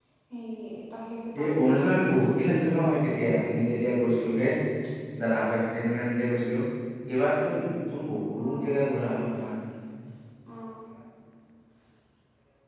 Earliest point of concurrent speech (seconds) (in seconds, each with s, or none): 1.4 s